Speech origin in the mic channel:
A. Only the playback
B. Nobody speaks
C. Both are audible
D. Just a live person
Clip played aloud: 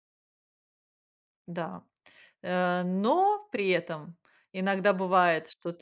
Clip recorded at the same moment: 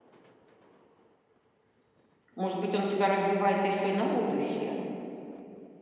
D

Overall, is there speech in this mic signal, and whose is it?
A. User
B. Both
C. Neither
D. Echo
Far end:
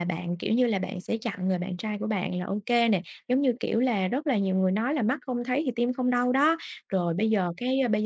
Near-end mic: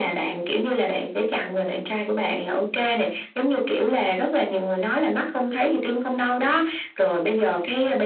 D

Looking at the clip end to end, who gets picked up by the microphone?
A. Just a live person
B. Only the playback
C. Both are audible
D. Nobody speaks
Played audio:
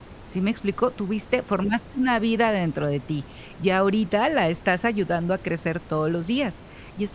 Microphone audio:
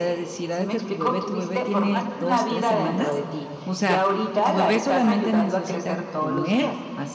C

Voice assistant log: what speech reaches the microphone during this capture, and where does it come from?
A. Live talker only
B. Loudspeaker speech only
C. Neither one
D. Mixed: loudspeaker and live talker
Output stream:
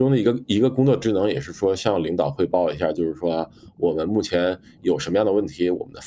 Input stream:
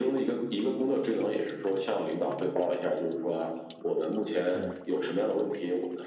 D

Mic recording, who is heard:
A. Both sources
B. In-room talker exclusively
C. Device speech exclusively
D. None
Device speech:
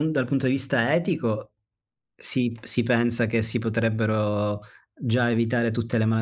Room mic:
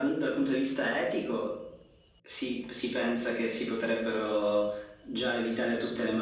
C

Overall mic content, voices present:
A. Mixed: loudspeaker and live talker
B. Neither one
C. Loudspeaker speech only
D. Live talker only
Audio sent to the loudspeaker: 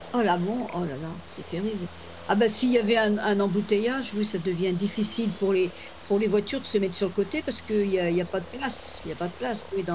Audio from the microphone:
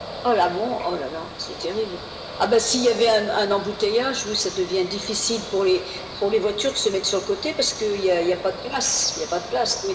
C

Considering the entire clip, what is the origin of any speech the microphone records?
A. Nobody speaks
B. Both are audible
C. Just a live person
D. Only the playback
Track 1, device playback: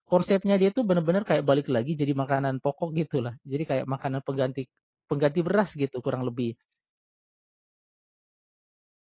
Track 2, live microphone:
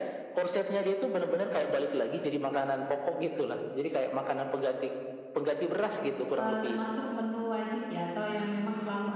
B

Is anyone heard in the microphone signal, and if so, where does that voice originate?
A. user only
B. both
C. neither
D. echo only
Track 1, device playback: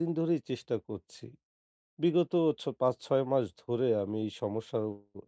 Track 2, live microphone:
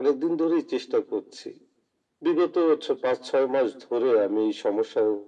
D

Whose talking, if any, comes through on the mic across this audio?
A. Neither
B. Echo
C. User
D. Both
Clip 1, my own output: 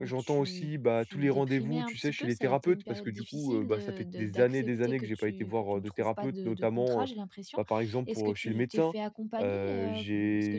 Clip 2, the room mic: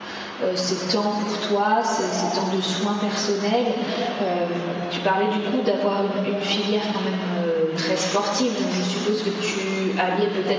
C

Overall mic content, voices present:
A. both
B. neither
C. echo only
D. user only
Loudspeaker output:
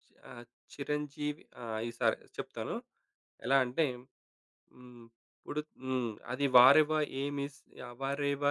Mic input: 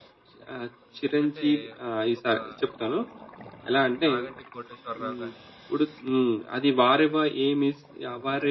A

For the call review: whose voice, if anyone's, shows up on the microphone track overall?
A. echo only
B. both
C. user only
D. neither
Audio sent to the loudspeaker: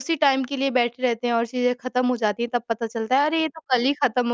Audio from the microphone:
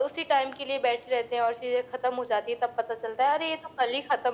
A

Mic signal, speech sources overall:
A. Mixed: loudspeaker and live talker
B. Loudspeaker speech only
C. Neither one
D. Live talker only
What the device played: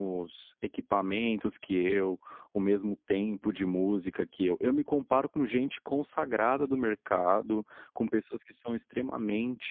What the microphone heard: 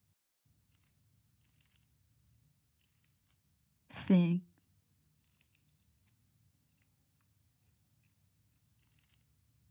D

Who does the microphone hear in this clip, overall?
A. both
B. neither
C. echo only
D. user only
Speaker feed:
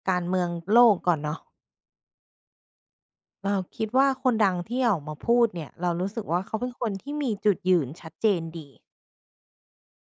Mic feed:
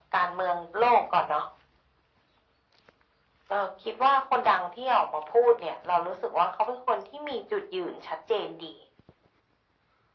C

